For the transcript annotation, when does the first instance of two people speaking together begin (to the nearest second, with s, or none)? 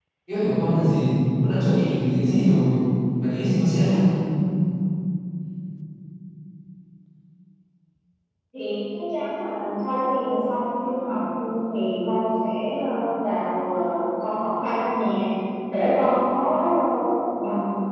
none